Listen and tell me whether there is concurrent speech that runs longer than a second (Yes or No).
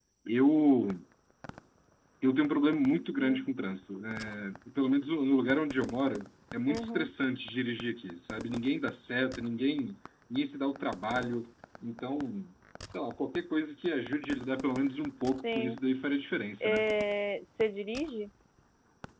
No